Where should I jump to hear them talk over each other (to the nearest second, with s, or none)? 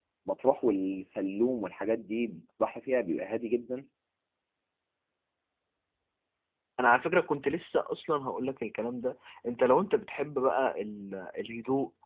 none